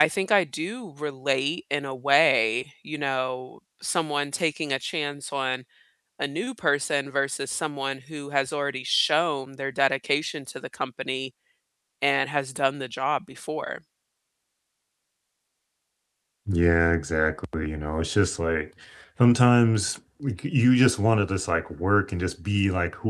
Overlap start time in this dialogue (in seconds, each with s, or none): none